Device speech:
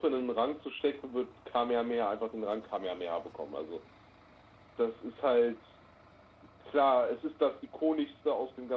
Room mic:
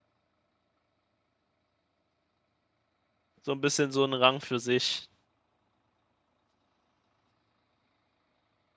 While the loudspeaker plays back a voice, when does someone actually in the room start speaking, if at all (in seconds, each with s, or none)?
3.4 s